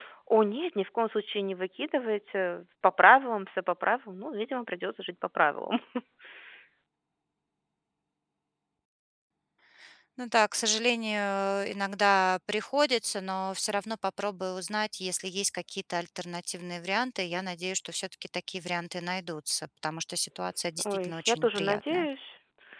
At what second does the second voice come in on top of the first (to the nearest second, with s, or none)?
21 s